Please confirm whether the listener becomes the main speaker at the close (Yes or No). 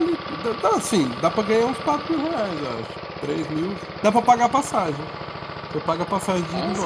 No